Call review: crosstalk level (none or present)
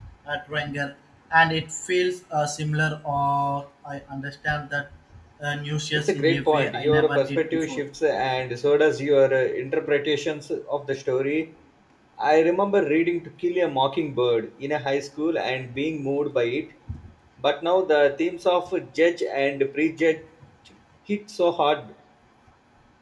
present